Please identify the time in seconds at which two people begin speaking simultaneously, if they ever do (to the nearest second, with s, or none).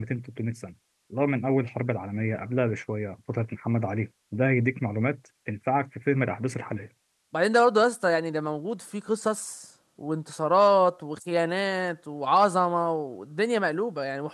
none